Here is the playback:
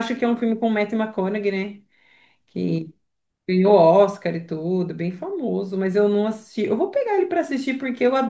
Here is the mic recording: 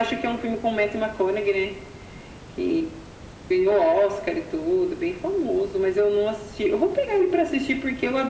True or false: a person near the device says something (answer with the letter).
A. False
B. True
A